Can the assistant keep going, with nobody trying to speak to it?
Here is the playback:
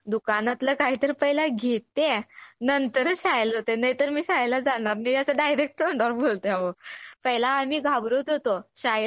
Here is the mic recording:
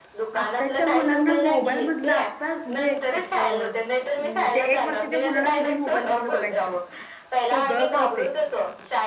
No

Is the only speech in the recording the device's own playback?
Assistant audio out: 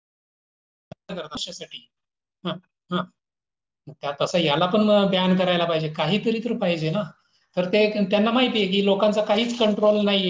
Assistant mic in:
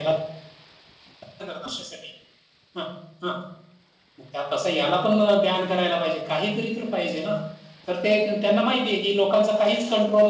Yes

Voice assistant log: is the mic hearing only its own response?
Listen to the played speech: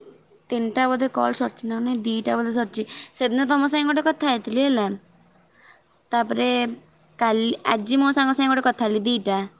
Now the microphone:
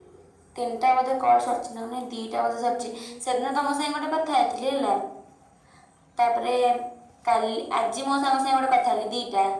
No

